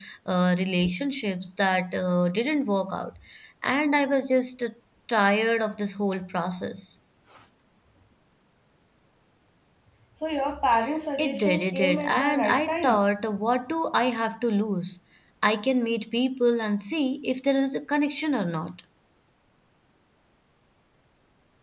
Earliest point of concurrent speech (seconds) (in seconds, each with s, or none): 11.2 s